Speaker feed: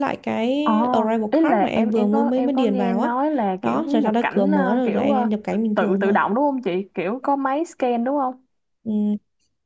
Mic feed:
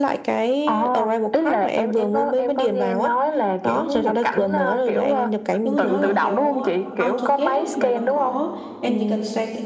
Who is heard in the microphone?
both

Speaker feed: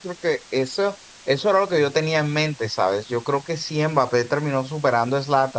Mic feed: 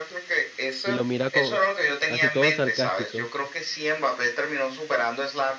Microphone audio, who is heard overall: both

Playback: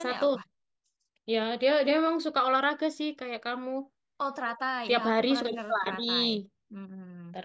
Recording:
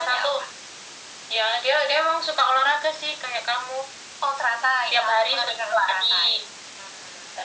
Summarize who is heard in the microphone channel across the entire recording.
echo only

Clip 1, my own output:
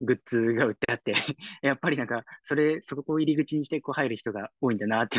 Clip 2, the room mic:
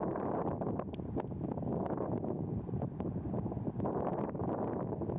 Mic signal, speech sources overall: neither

